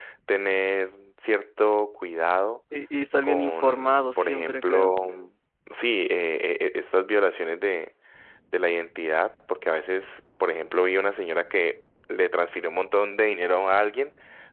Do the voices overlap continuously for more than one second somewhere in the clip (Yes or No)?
Yes